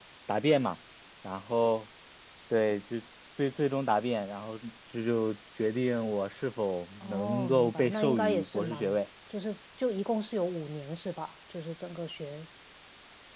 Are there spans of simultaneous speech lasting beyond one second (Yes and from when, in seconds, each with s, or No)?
Yes, from 7.0 s